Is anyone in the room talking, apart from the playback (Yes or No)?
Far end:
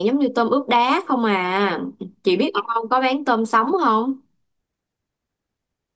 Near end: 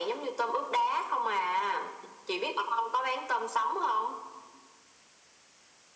No